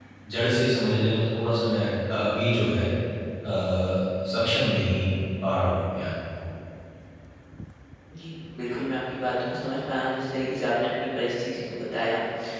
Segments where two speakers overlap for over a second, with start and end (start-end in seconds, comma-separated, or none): none